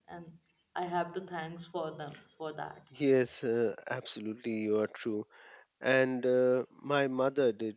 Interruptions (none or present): none